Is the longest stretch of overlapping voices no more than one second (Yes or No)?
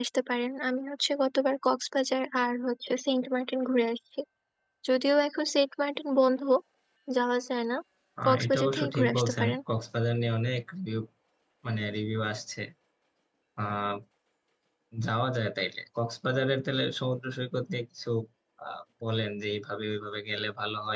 No